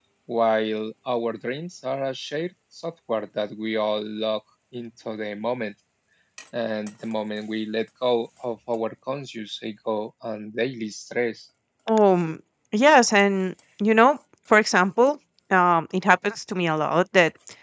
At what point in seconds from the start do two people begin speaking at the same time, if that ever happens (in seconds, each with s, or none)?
none